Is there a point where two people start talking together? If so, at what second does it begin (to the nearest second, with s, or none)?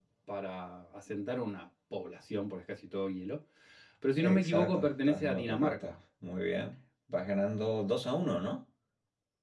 4 s